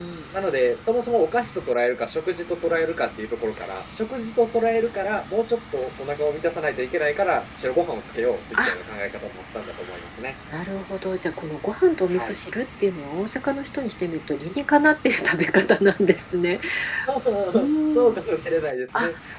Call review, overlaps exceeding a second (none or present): none